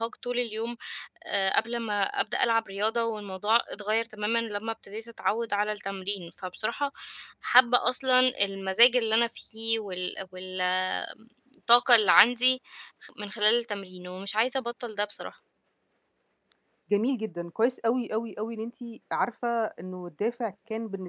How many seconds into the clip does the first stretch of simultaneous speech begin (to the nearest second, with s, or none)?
none